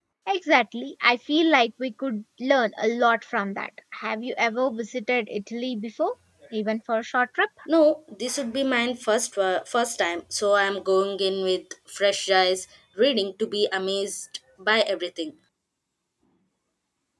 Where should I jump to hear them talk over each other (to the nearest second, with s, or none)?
none